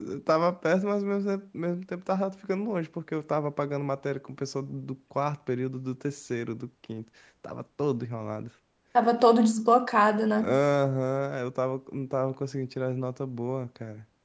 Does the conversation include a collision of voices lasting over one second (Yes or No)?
No